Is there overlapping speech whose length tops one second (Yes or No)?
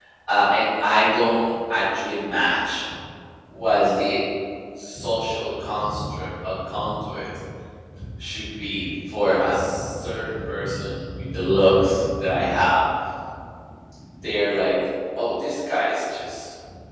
No